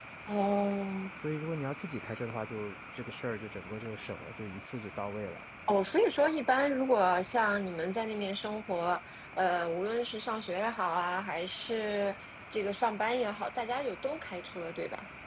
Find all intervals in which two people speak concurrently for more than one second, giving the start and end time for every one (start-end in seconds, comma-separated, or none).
none